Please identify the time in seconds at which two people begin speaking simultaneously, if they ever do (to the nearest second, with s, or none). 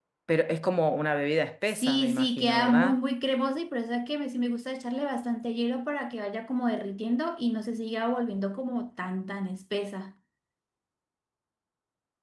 2 s